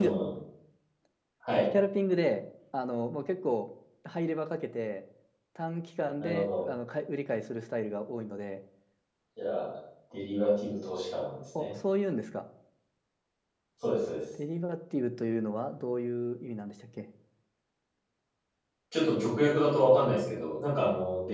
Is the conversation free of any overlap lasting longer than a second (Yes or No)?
Yes